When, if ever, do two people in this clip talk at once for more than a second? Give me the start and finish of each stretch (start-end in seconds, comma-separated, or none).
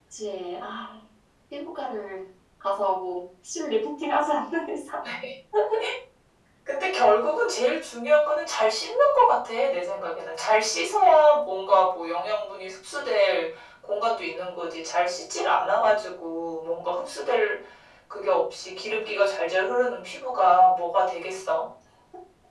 none